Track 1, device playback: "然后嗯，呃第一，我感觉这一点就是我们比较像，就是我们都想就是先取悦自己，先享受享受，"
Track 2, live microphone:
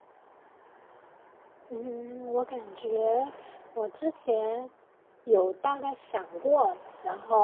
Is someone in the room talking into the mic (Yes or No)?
Yes